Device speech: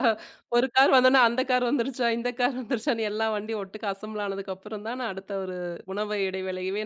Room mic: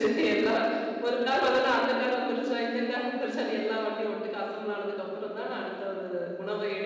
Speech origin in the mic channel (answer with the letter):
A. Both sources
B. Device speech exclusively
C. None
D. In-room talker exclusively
B